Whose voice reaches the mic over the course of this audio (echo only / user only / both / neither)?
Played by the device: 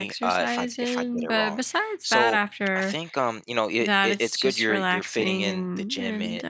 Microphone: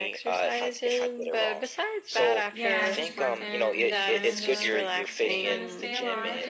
both